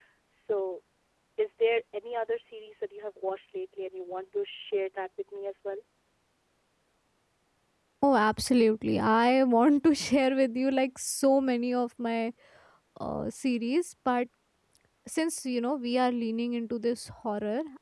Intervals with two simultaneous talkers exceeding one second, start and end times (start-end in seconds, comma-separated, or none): none